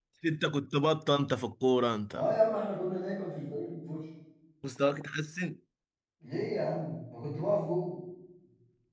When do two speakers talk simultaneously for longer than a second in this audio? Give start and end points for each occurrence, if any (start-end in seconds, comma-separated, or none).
none